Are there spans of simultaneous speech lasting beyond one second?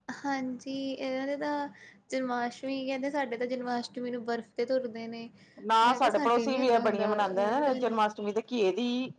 Yes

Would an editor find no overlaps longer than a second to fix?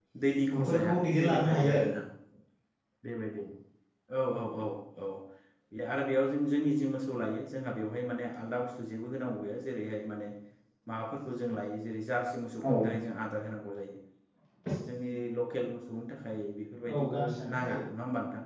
No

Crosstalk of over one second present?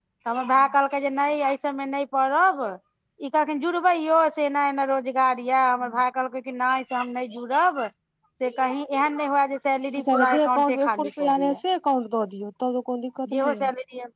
Yes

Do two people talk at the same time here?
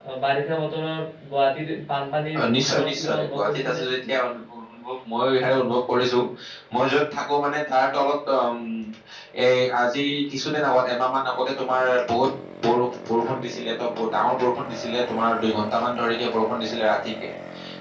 Yes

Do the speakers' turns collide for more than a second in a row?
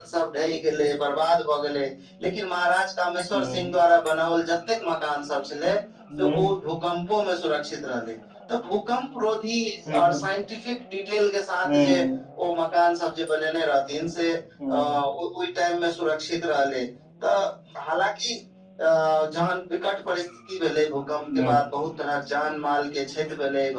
No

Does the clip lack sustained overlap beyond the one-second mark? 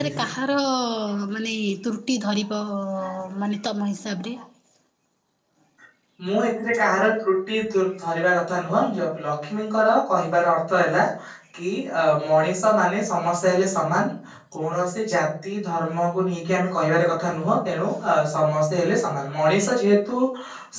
Yes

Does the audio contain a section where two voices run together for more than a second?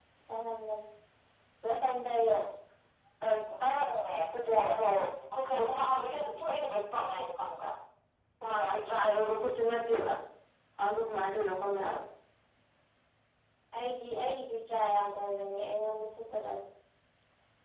No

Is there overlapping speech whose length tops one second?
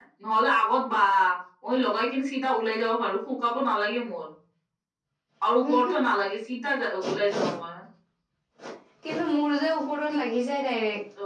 No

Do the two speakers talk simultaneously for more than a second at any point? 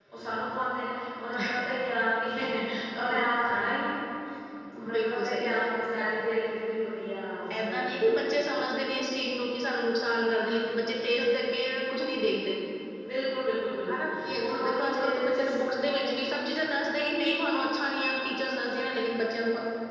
Yes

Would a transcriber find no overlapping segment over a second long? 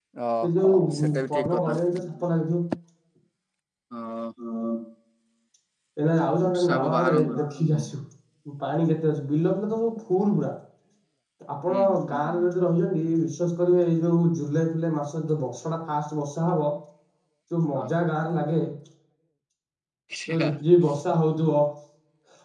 No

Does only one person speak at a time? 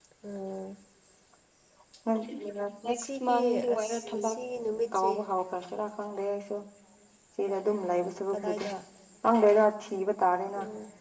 No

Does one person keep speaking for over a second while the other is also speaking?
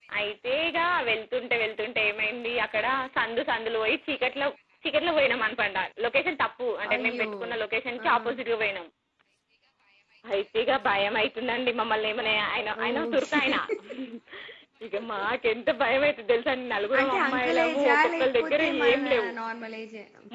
Yes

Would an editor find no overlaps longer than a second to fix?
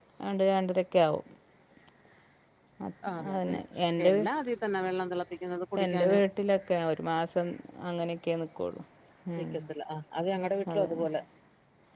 Yes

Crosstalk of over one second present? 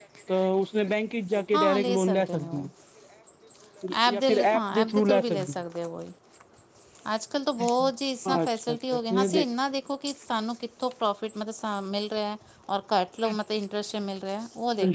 Yes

